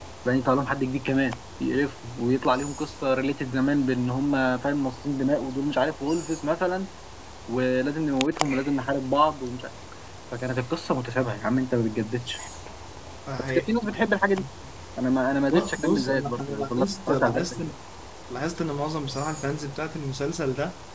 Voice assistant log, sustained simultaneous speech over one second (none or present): present